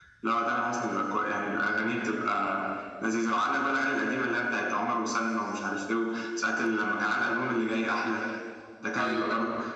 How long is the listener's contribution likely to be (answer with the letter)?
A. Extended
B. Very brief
B